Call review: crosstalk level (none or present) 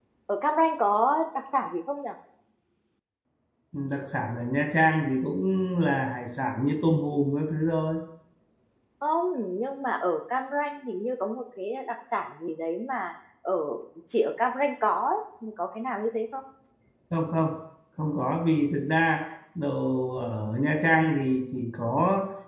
none